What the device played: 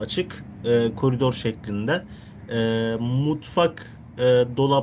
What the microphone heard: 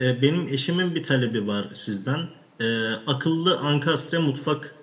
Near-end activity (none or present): present